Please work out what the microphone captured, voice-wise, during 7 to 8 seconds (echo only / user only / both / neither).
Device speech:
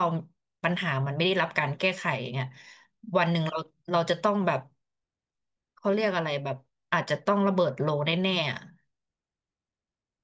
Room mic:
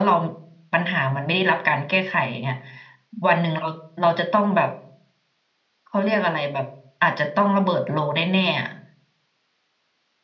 echo only